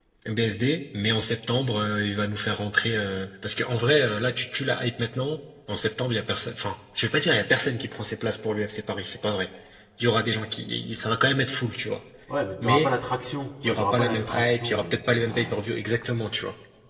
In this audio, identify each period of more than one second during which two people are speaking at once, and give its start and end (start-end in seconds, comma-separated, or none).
13.6-15.6